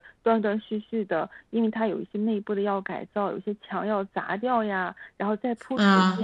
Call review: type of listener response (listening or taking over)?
listening